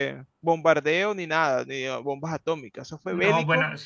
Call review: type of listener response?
taking over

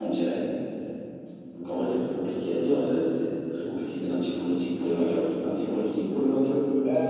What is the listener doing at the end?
taking over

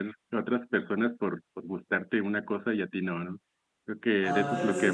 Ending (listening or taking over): taking over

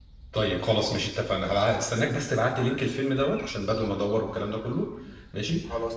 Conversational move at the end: listening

